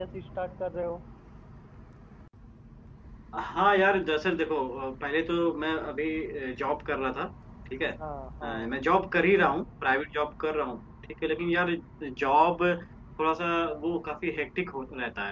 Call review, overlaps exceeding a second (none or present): none